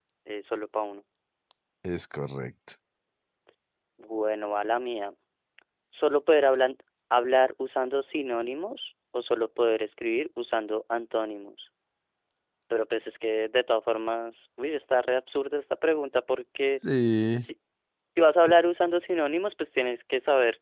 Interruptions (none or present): none